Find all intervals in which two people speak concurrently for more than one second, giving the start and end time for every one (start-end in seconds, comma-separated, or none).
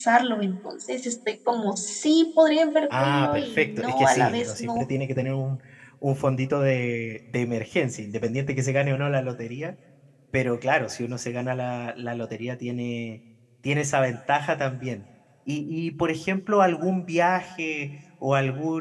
3.0-4.9